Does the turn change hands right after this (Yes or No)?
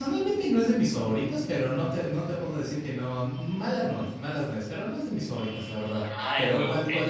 Yes